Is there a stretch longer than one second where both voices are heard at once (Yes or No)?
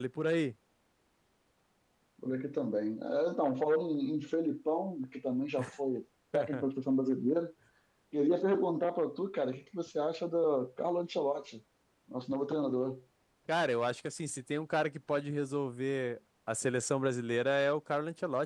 No